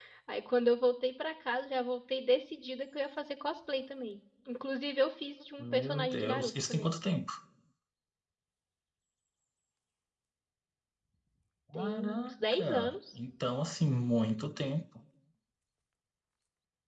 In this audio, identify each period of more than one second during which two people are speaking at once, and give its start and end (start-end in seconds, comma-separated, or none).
5.6-6.9, 11.7-13.0